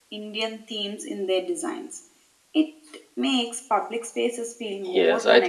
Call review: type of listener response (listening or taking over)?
taking over